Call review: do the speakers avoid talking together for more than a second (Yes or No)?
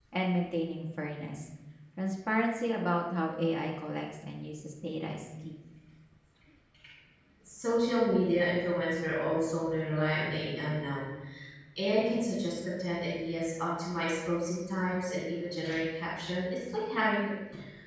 Yes